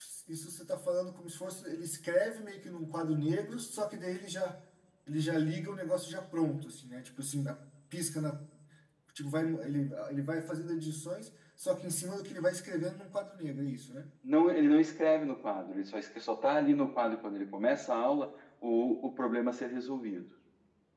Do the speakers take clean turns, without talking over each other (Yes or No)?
Yes